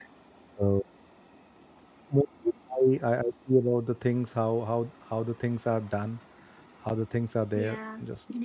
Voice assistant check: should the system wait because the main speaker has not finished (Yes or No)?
No